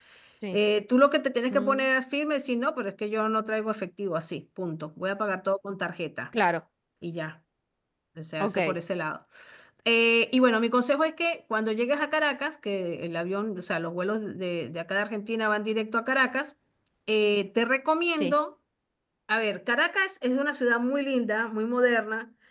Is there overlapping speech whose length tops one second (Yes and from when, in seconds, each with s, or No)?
No